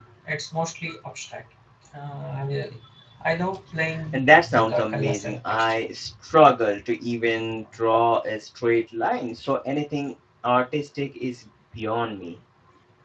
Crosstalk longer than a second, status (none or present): present